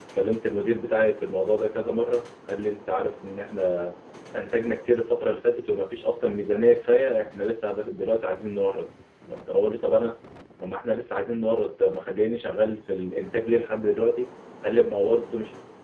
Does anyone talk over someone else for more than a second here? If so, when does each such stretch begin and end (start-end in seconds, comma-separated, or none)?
none